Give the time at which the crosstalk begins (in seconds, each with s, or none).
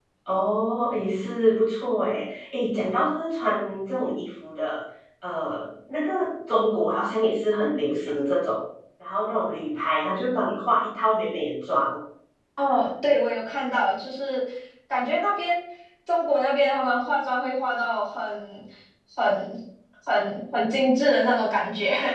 none